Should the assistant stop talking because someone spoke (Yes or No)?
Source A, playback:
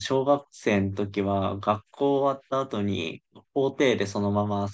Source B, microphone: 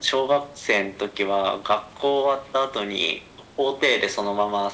No